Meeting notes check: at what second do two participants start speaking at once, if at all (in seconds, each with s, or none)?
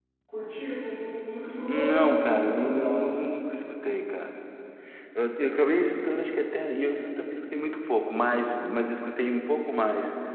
1.7 s